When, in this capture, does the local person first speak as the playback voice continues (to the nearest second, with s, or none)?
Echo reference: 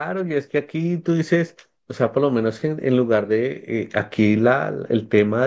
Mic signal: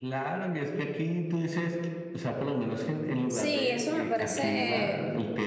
3 s